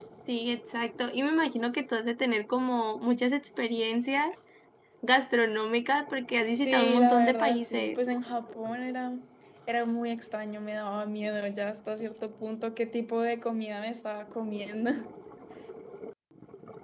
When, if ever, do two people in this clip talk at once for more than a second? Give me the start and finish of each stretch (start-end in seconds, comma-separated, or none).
6.5-8.0